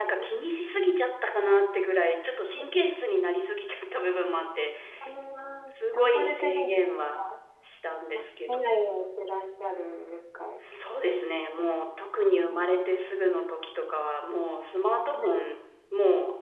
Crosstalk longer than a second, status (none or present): present